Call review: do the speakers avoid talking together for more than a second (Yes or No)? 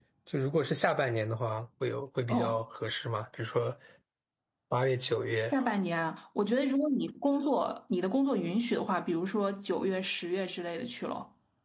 Yes